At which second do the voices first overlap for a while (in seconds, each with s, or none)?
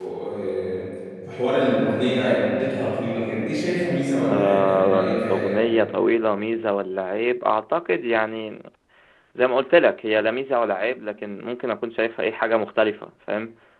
4.2 s